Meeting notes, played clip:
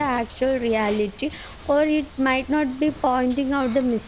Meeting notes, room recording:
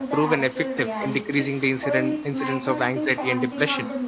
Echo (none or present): present